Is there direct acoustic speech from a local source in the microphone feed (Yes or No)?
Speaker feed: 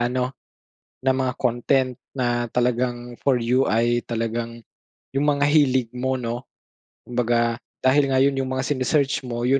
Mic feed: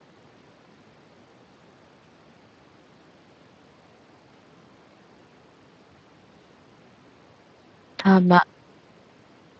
Yes